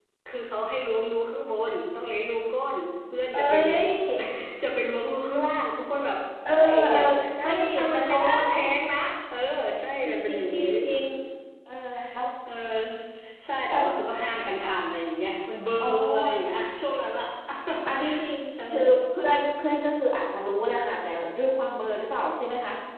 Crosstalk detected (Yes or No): Yes